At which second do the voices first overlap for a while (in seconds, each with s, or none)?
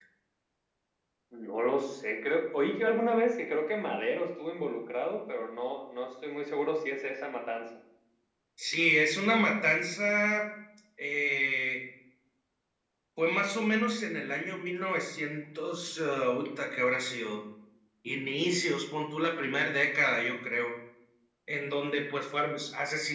none